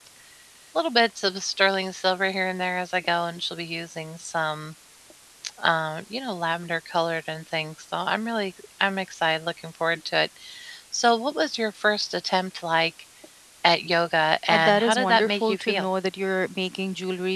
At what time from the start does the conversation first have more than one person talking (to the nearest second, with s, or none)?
14 s